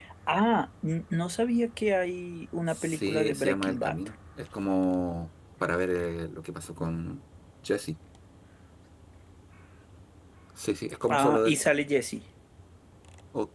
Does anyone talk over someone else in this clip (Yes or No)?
Yes